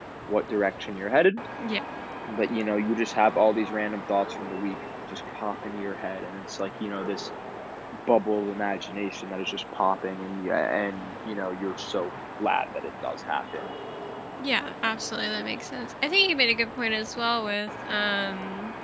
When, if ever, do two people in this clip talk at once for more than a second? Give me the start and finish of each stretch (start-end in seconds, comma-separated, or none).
none